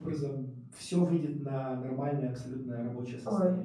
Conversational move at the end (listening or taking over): taking over